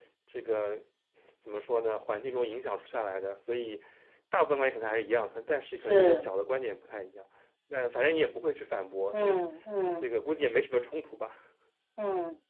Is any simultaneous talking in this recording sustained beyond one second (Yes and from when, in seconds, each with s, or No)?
No